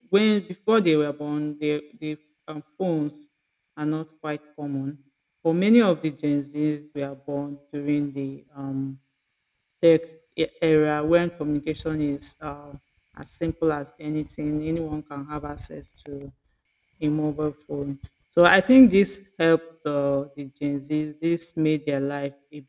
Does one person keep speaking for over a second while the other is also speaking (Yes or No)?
No